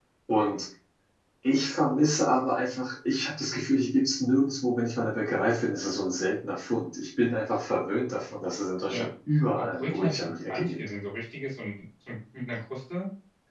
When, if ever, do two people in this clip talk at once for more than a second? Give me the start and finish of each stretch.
9.6-10.9

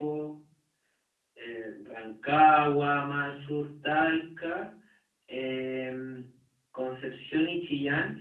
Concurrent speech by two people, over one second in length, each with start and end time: none

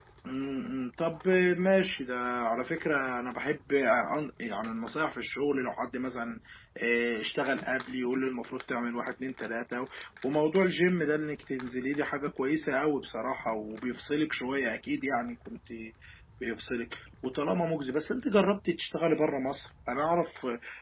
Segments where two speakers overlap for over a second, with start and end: none

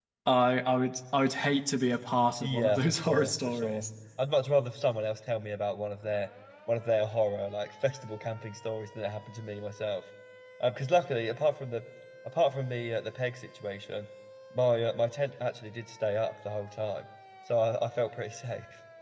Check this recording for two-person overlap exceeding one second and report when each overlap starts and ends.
2.4-3.8

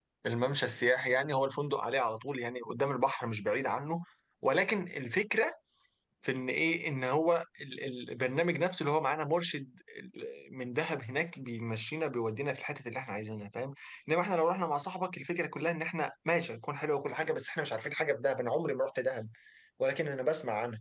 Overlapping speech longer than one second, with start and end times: none

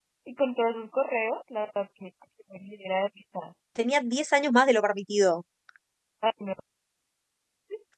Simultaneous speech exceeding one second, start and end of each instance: none

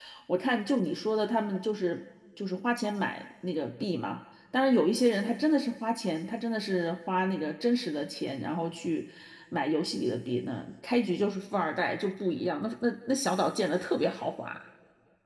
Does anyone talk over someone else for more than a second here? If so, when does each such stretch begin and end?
none

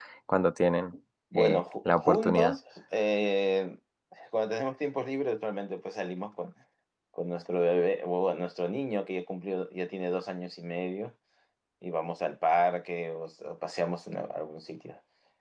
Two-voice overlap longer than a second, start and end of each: 1.4-2.5

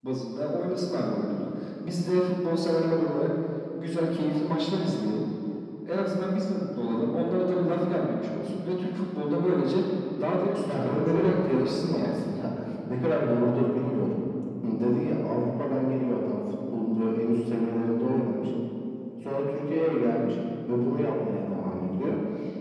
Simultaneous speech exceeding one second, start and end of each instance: 10.8-12.1

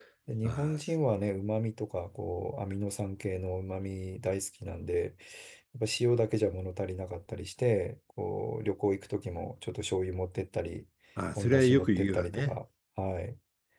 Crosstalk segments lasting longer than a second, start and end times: 11.3-12.6

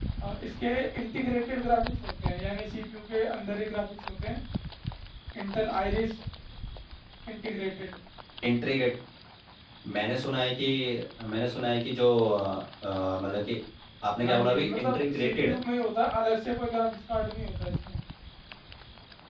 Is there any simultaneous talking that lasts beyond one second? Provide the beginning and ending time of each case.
14.2-15.5

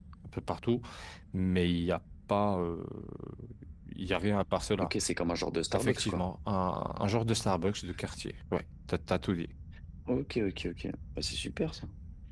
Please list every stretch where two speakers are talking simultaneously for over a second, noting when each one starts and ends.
none

